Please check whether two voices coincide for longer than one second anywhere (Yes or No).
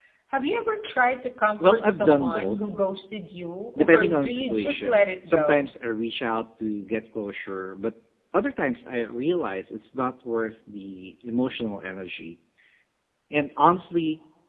Yes